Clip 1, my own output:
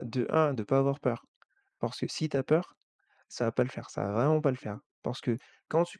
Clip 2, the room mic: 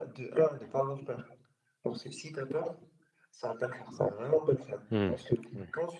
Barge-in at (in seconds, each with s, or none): 4.9 s